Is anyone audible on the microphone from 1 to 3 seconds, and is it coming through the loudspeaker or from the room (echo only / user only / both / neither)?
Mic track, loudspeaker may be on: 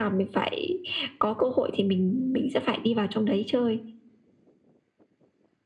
echo only